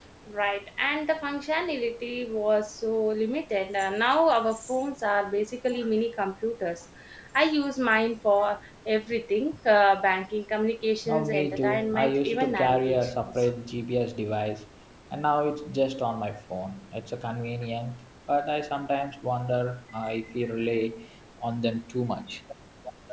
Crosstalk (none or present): present